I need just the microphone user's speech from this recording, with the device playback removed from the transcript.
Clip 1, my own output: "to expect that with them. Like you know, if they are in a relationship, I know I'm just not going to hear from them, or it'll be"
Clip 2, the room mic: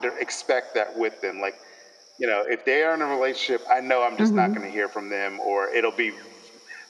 Mhm.

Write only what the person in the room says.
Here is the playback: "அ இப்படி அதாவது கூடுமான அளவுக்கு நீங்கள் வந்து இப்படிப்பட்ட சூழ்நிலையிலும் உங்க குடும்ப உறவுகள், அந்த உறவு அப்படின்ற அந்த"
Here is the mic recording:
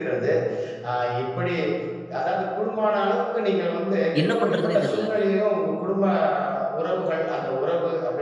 என்ன பண்றதுன்னே தெரியல.

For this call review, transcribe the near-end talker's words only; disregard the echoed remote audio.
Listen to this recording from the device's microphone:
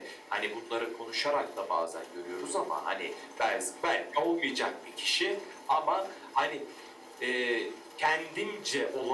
none

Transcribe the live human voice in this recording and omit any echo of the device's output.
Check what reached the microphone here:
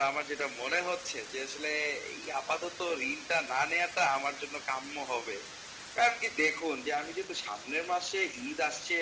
none

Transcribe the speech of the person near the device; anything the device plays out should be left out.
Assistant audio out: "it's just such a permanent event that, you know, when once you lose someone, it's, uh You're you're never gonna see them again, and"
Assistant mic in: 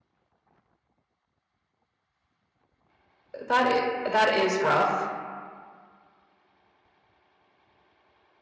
That i that is rough.

